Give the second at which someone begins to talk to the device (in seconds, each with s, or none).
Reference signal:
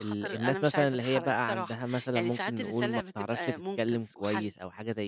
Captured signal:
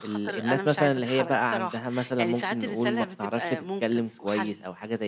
none